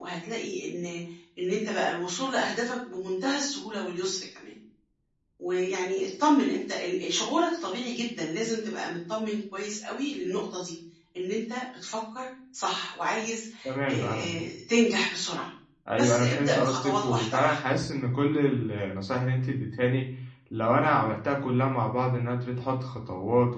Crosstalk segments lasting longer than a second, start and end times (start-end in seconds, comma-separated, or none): 16.0-17.6